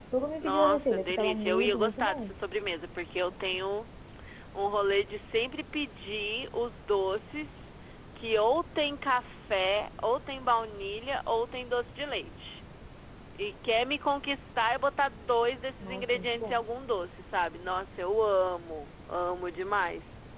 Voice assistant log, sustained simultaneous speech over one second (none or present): present